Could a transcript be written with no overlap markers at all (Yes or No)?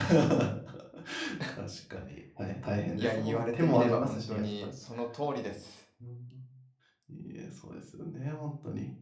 No